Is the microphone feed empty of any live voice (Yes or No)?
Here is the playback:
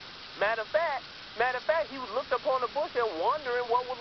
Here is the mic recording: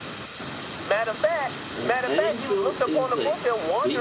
No